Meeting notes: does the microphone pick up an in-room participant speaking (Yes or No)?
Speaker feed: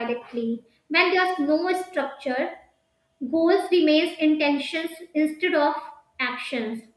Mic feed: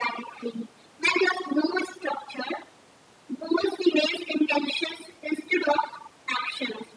No